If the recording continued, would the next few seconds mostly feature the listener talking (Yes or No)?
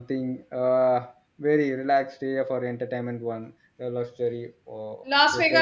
Yes